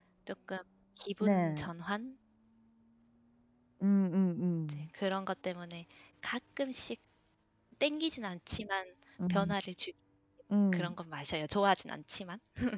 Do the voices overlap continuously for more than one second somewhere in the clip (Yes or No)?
No